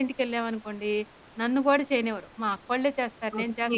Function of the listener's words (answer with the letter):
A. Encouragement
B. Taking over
B